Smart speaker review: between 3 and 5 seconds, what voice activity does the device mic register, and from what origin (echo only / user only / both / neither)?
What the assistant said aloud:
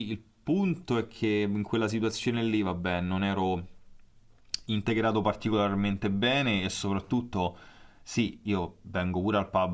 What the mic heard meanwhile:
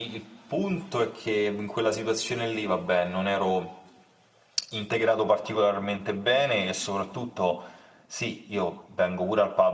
echo only